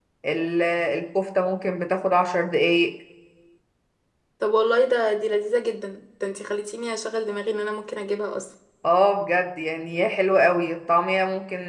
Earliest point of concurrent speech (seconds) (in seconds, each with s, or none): none